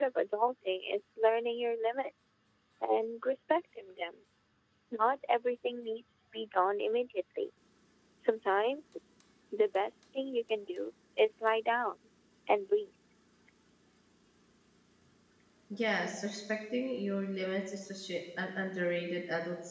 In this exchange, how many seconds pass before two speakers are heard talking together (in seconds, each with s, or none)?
none